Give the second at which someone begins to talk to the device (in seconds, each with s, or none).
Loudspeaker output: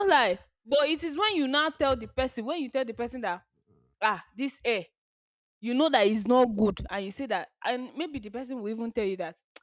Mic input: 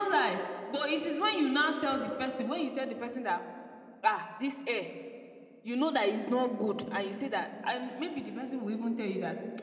none